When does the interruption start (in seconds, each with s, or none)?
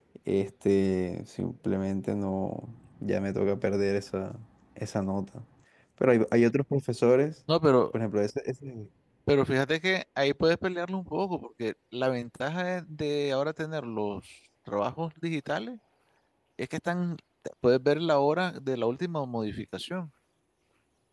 none